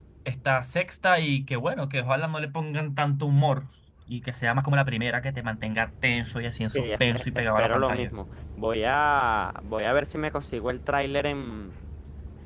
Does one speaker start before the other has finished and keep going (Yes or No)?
Yes